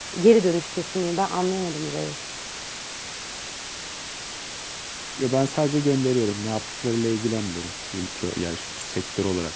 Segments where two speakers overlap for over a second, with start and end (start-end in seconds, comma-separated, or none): none